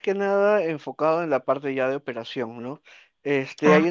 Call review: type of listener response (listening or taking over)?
listening